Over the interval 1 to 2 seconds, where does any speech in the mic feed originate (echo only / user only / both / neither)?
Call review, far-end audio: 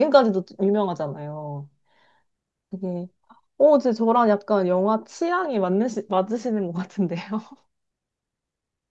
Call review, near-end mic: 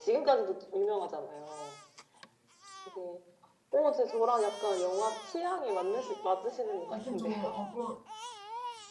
echo only